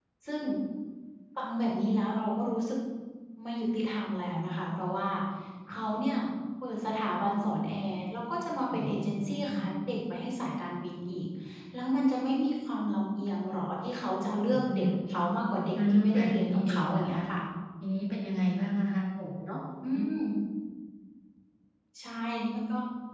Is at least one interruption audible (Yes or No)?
Yes